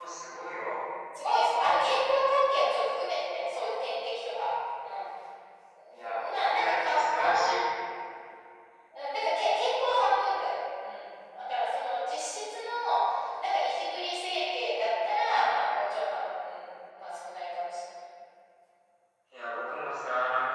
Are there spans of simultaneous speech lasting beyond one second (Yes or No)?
Yes